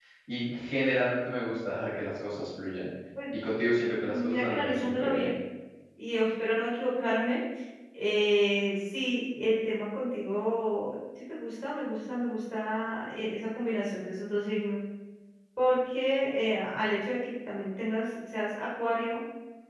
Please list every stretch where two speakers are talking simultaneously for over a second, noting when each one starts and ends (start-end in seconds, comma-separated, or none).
4.0-5.3